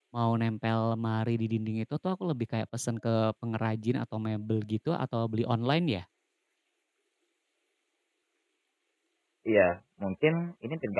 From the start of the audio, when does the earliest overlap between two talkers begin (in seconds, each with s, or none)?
none